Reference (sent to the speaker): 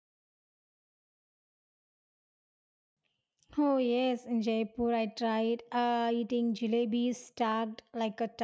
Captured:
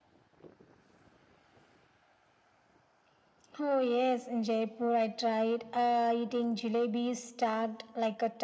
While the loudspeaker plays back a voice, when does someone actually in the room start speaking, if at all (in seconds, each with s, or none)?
none